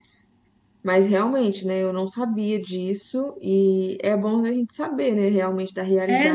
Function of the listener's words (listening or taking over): taking over